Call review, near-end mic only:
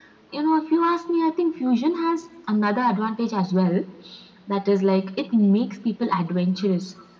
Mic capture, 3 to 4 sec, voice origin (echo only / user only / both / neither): echo only